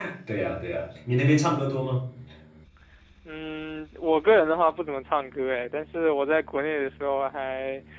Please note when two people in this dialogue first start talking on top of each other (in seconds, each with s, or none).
none